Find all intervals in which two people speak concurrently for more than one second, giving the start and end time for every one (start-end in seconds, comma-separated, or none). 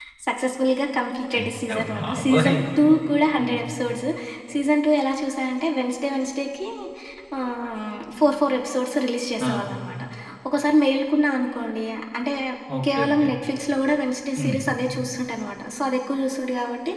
1.4-2.6